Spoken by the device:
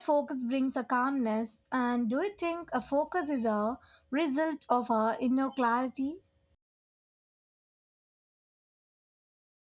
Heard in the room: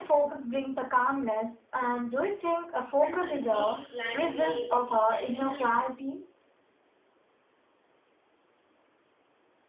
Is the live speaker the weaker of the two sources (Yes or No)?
Yes